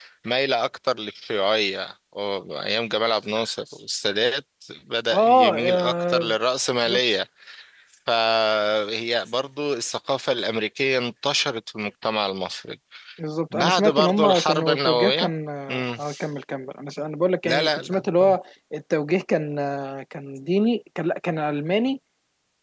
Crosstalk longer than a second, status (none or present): present